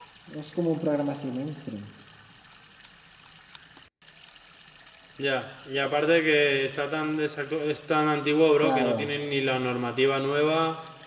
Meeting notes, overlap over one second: none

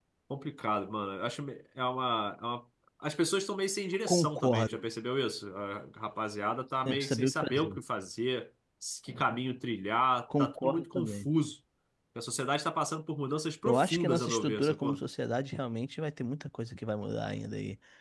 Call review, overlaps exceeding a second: present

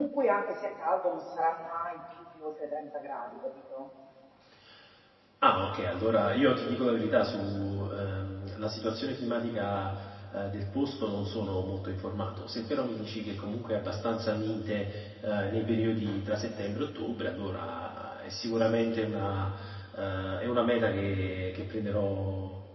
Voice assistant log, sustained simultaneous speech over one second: none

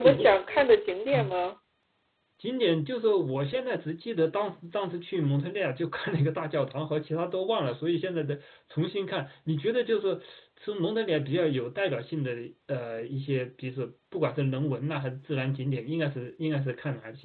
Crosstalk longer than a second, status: none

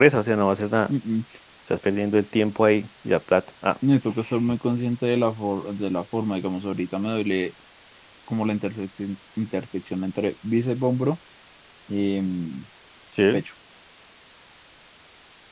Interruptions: none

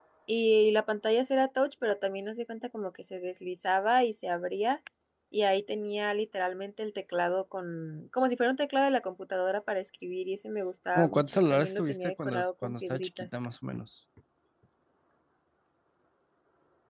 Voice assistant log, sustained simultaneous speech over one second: present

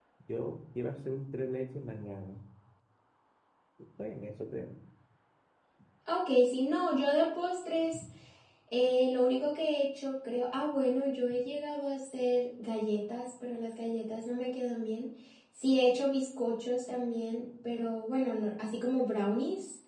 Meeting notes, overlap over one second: none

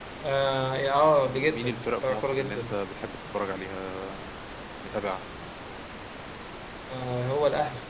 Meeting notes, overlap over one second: present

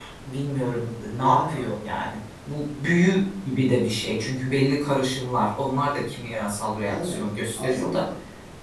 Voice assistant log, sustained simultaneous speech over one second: present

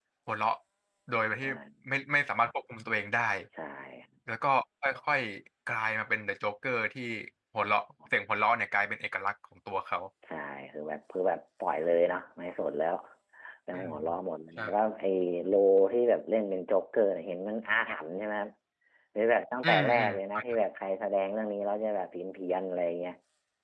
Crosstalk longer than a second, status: none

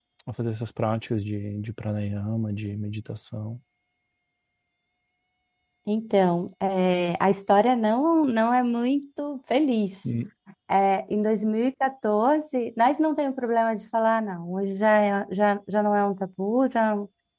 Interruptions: none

